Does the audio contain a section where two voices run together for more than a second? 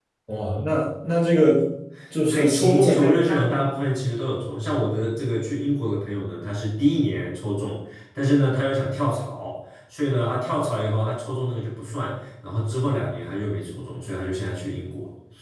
Yes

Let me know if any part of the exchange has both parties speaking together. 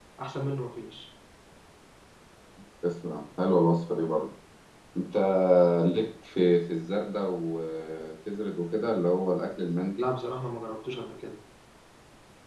No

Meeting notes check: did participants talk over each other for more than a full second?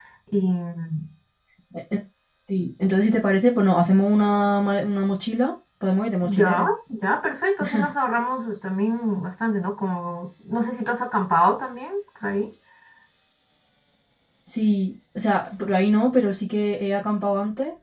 No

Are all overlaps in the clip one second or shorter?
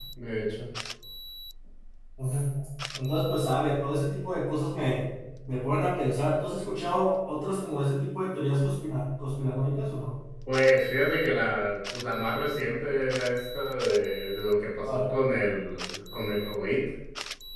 Yes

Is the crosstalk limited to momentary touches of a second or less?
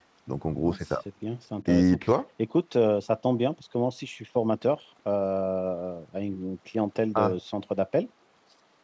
Yes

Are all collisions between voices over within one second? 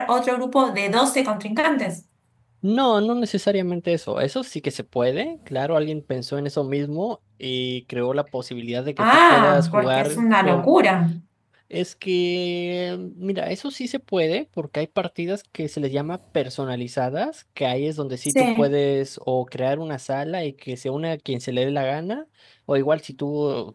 No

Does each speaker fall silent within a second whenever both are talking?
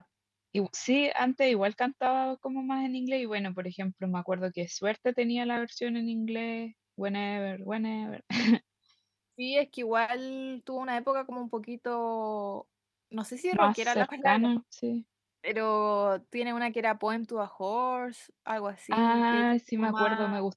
No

